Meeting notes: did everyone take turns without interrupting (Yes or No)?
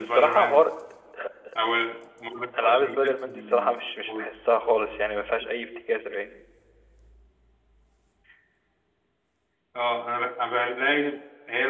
No